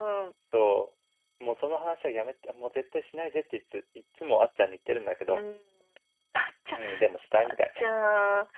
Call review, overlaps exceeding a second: none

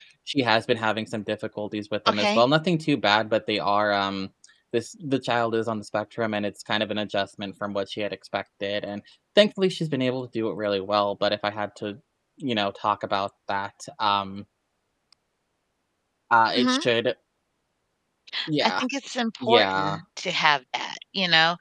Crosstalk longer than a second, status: none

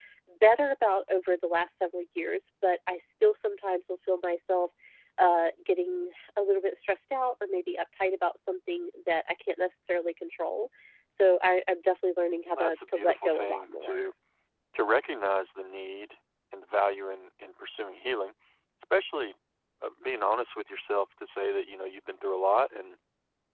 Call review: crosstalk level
present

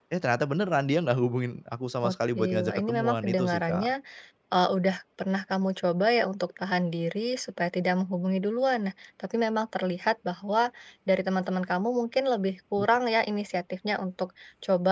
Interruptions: present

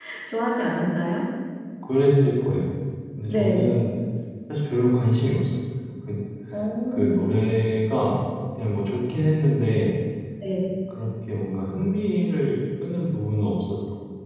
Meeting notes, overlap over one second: none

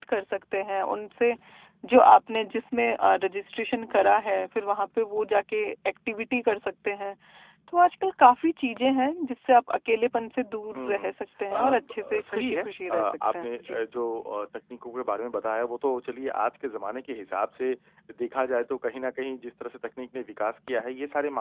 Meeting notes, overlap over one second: present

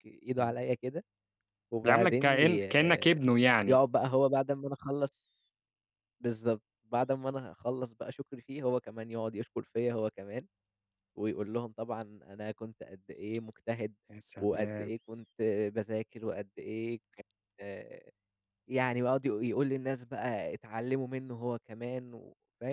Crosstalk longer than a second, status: present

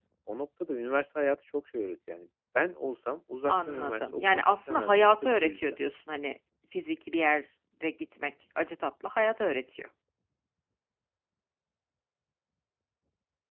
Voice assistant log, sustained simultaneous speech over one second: present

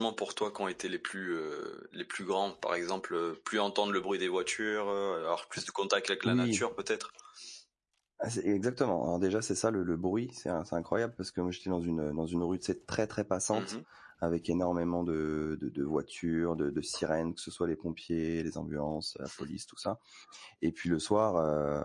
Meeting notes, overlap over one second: none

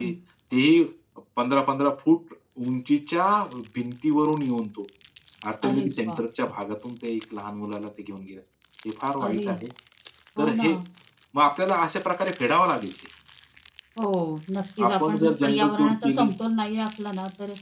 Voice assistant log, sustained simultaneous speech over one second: present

